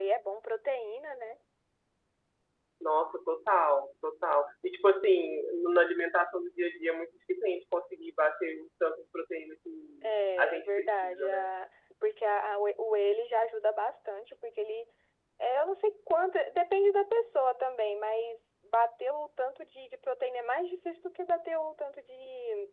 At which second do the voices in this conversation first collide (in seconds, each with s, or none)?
10.0 s